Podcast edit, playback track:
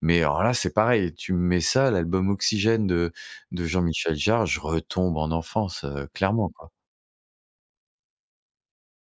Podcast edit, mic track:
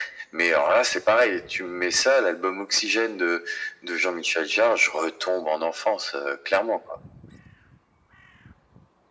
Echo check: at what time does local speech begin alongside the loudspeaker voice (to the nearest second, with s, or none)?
none